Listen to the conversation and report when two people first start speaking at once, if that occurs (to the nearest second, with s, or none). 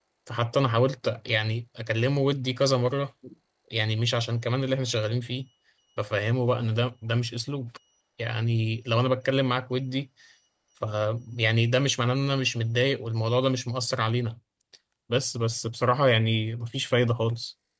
none